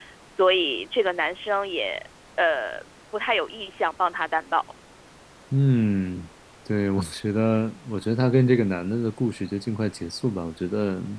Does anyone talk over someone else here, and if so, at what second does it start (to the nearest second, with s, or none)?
none